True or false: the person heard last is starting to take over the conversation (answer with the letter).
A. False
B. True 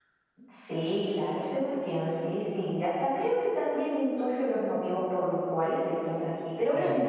A